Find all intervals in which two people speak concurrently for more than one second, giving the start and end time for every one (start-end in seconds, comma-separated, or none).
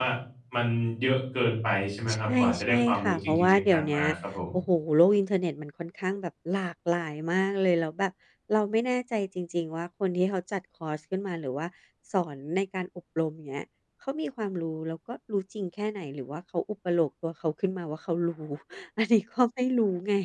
2.1-4.0